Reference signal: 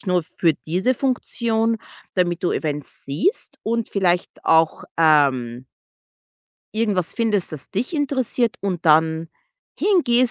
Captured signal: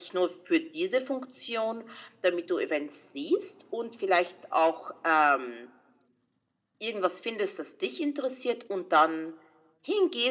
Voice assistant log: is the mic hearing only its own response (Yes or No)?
Yes